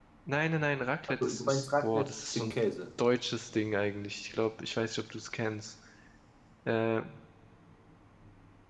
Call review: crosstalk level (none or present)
present